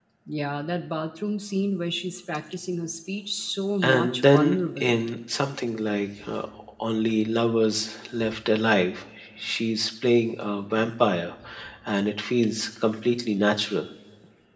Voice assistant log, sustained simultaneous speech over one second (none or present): present